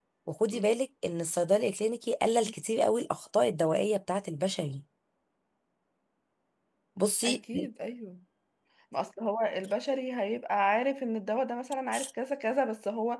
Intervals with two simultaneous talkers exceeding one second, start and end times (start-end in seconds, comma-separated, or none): none